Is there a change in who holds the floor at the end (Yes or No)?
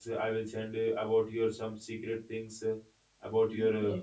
No